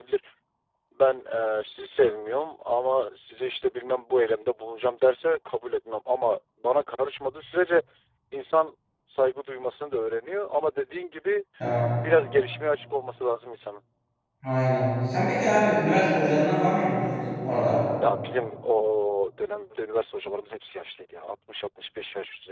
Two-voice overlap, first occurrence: none

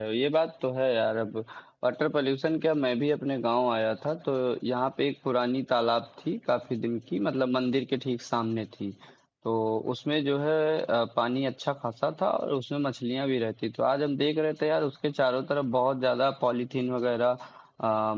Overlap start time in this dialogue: none

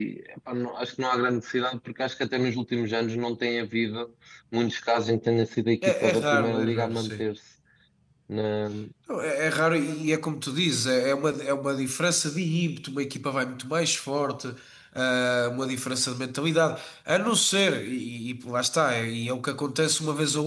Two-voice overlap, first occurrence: 6 s

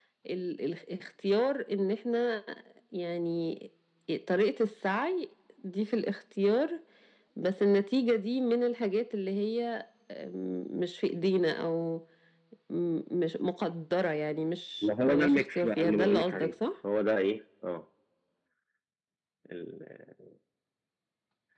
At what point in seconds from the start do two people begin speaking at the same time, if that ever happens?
15 s

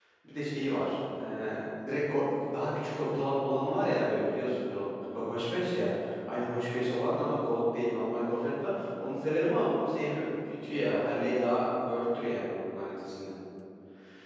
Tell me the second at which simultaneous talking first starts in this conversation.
none

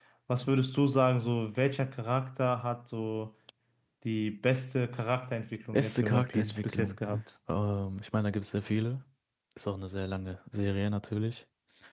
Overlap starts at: 6 s

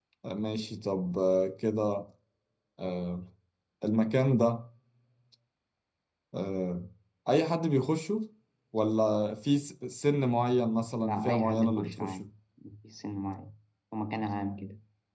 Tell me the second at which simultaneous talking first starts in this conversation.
11 s

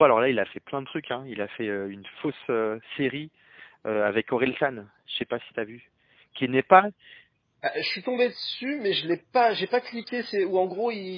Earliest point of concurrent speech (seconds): none

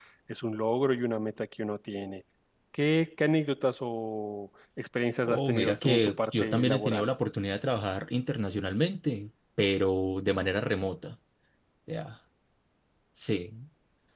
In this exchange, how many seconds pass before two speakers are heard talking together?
5 s

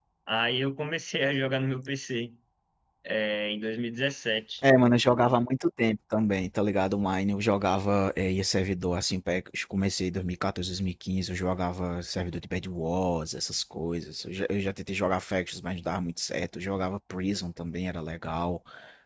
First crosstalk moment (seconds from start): none

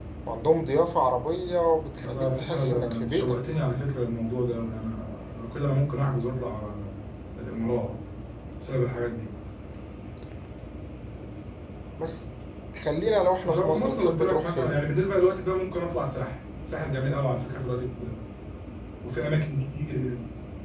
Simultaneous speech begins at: 2 s

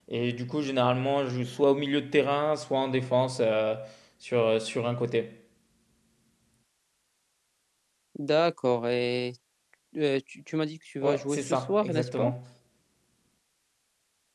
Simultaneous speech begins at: 11 s

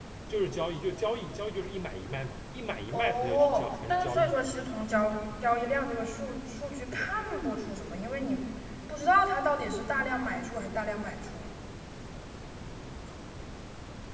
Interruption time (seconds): 3 s

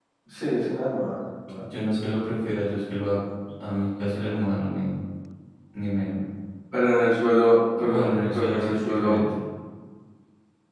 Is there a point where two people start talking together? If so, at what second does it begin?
8 s

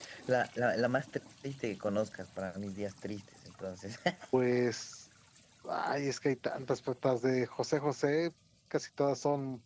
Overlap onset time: none

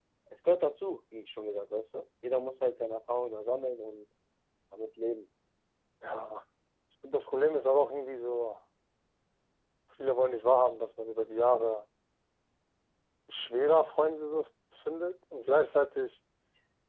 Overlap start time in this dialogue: none

